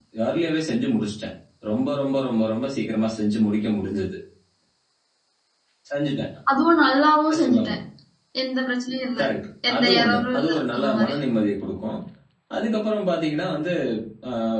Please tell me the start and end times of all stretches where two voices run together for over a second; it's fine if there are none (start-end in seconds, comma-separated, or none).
9.7-11.2